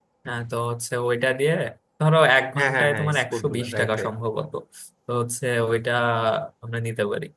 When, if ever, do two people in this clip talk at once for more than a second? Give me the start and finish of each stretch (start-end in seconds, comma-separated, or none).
2.6-4.1